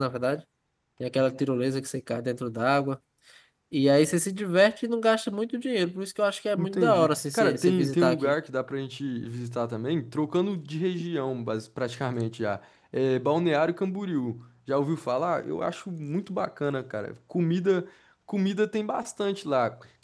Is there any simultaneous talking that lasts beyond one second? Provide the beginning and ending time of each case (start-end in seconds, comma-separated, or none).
6.6-8.4